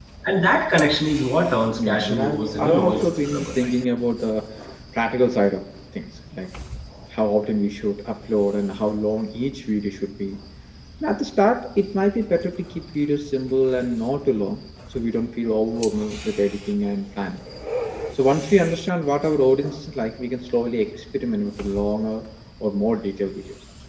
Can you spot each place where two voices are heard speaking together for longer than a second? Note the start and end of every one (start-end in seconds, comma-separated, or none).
1.8-3.6